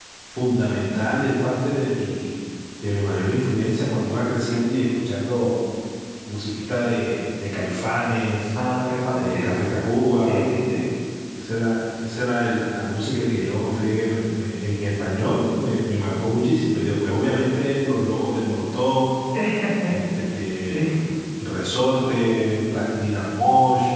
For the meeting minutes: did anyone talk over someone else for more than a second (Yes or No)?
No